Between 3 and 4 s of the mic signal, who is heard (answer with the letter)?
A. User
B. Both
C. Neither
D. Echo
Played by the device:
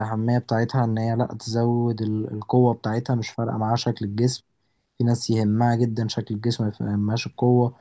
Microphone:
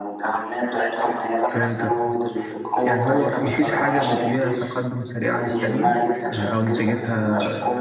B